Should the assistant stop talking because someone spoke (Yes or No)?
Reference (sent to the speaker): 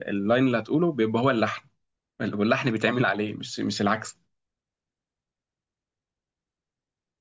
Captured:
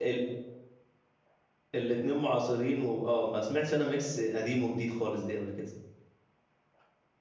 Yes